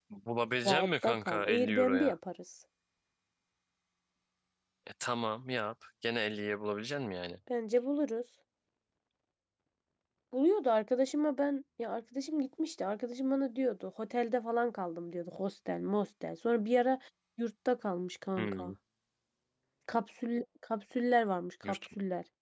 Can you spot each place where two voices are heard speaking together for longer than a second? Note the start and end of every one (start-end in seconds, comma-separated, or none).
0.7-2.1